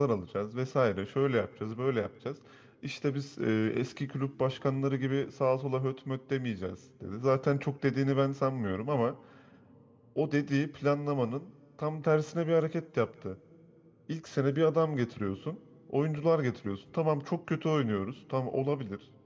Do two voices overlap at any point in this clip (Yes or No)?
No